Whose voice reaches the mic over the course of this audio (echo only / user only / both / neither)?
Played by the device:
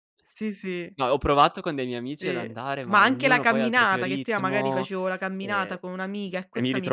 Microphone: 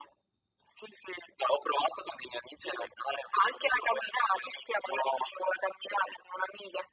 echo only